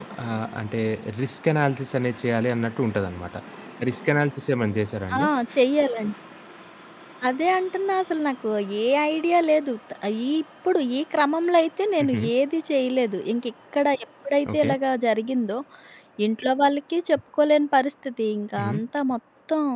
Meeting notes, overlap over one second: none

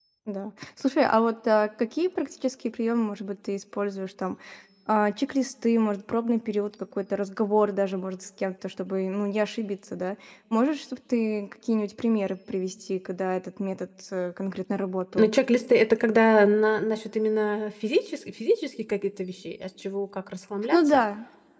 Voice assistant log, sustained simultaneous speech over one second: none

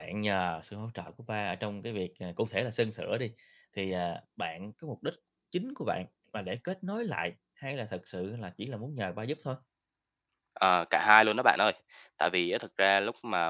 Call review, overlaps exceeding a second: none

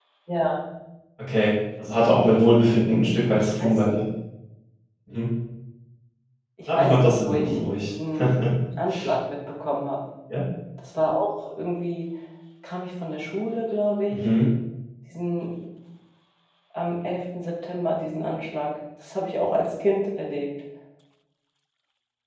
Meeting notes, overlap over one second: present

